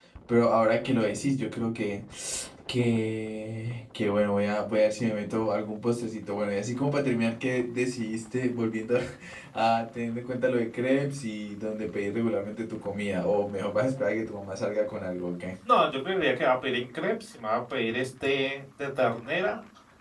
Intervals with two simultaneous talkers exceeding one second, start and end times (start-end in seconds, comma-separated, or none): none